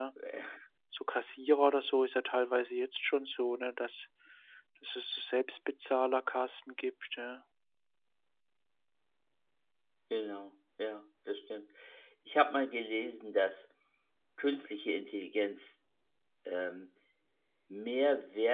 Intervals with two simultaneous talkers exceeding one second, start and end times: none

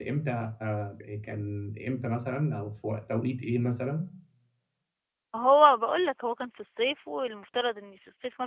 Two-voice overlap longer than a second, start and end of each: none

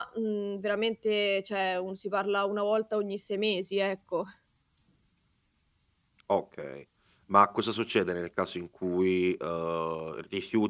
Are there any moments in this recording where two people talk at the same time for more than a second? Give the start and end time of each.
none

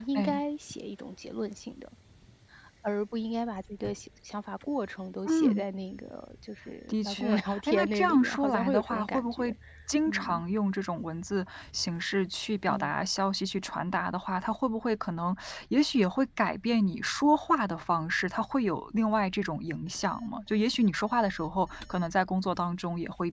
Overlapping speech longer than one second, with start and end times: 6.9-9.5

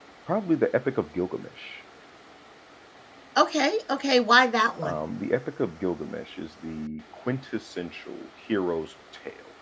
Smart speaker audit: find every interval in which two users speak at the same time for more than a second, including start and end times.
none

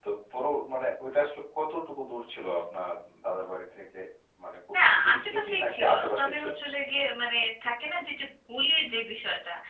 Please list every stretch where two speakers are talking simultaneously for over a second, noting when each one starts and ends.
4.8-6.5

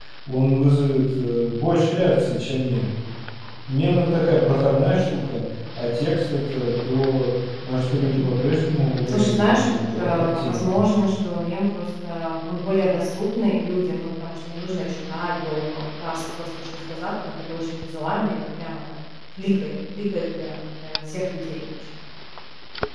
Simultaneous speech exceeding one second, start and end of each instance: 9.1-10.7

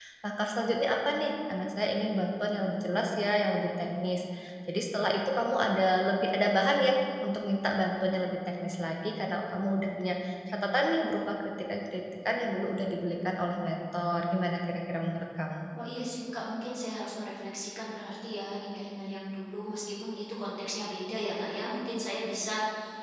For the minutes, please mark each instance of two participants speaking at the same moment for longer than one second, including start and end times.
none

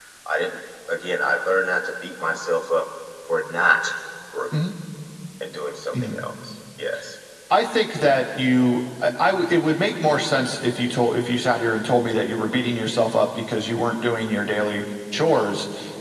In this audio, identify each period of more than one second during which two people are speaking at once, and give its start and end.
none

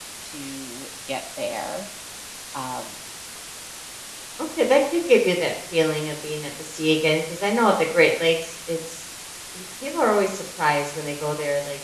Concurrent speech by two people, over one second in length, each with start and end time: none

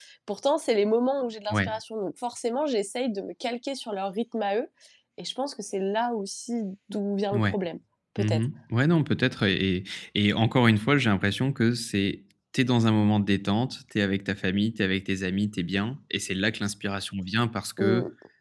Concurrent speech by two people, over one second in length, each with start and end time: none

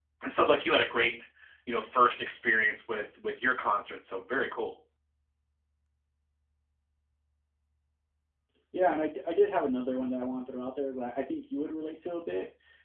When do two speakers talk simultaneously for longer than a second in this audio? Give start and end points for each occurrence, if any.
none

